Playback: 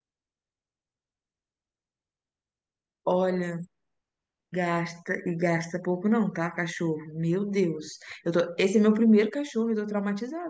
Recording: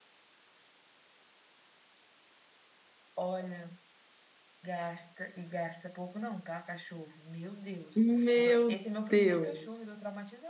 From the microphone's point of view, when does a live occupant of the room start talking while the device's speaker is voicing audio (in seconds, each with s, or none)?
7.9 s